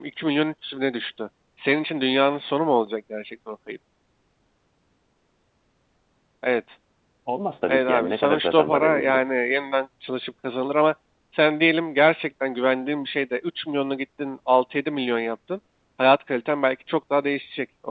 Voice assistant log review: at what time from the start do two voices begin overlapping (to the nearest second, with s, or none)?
8 s